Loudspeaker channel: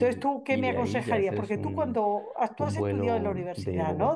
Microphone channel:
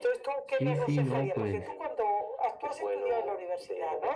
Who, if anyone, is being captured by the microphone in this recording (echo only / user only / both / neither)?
both